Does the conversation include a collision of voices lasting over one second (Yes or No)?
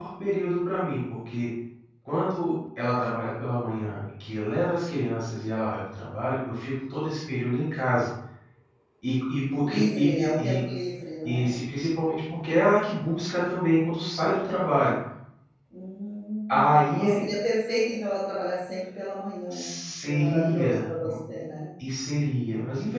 Yes